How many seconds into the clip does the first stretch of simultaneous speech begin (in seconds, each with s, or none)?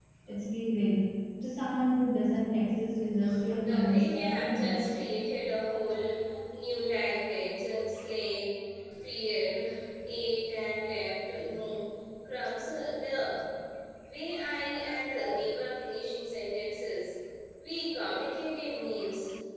3.2 s